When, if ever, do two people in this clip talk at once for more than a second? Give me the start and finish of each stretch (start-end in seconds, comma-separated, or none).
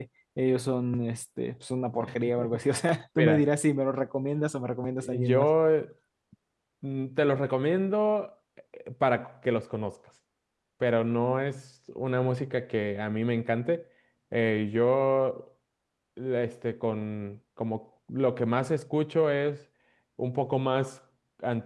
none